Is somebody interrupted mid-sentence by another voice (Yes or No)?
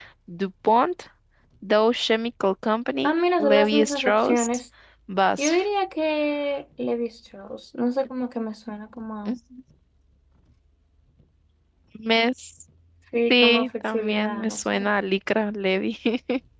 Yes